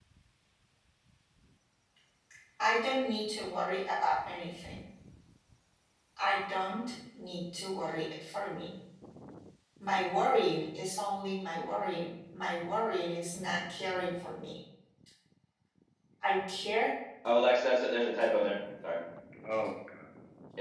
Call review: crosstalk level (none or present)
none